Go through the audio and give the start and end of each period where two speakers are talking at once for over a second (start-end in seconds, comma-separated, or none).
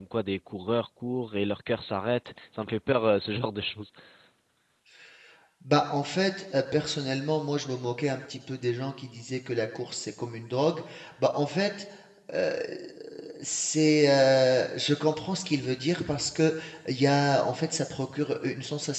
none